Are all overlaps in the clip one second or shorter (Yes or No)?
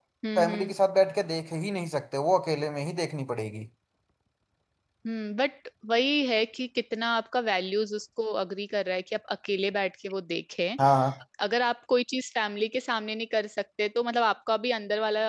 Yes